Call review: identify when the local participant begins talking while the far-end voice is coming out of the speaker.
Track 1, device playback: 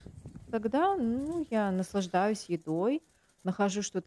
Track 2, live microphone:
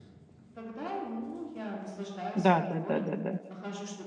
2.4 s

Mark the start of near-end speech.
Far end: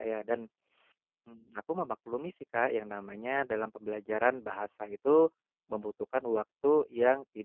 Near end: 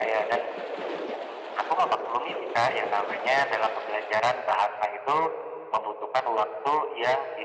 none

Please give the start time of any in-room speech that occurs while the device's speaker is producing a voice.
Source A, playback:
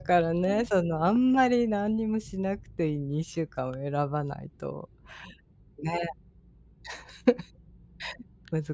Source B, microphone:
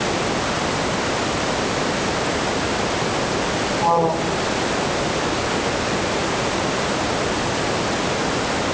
3.8 s

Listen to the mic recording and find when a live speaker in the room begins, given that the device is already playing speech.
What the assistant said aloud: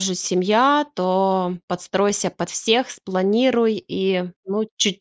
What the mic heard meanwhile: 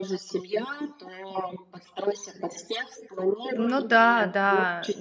3.5 s

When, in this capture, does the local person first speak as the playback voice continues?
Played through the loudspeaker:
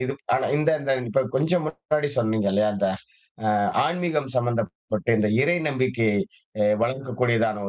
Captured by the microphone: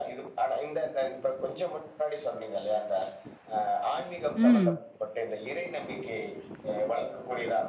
4.3 s

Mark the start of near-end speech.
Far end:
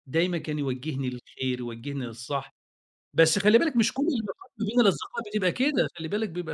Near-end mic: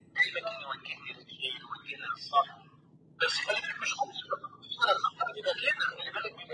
0.4 s

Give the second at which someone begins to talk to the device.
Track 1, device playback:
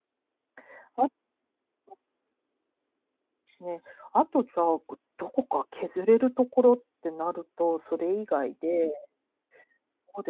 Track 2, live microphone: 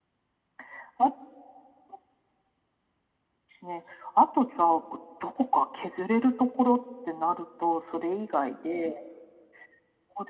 none

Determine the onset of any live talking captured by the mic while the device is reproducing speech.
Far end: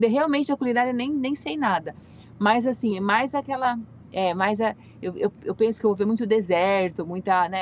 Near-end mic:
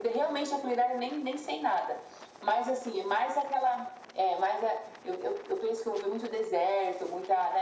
none

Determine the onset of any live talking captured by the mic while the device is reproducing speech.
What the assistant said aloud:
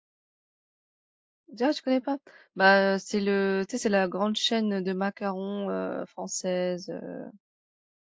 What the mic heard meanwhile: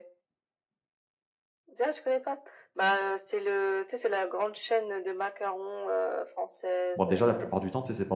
7.0 s

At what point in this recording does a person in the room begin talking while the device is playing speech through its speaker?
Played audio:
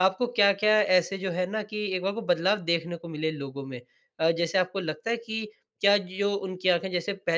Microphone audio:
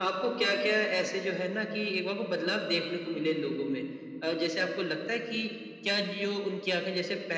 none

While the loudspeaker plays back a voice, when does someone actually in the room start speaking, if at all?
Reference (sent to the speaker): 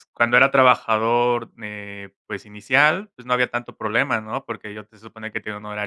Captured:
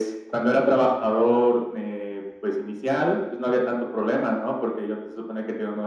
none

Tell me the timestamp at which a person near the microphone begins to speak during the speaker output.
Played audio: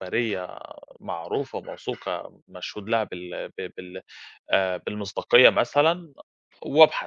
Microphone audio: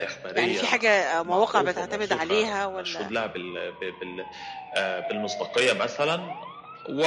0.4 s

